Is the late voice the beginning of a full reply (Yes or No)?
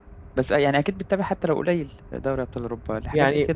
Yes